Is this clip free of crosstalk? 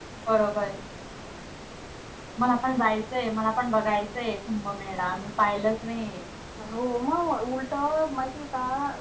Yes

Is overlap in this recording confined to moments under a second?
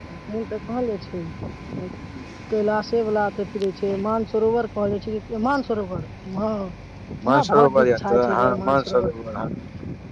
No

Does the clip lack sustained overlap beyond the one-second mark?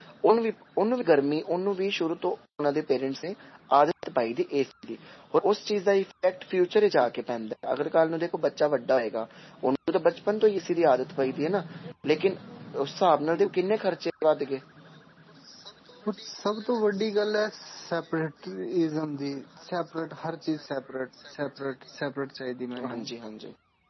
Yes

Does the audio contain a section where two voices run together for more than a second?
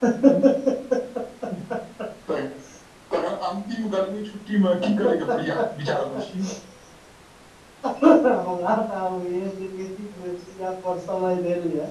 No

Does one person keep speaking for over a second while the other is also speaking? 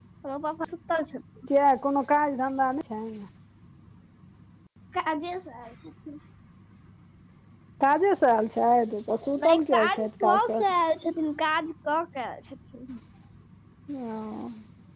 Yes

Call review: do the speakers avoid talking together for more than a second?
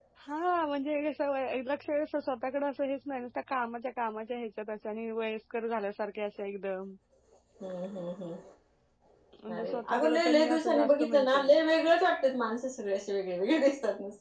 No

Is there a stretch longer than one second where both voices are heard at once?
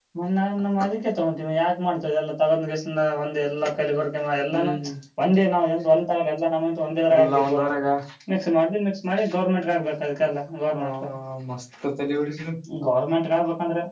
No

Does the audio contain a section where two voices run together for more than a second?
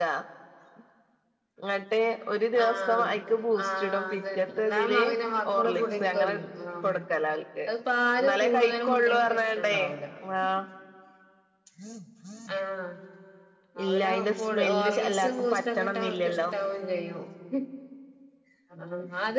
Yes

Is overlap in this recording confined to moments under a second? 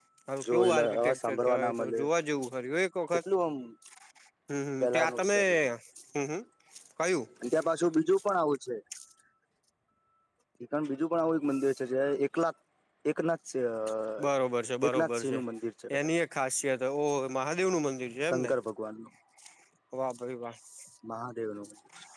No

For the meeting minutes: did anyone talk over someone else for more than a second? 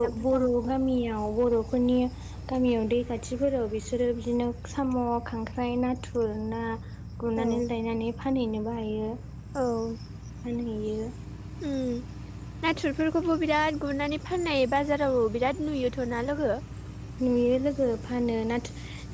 No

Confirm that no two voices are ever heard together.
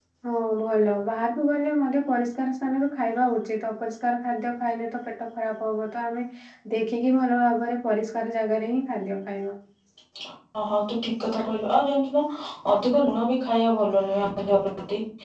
Yes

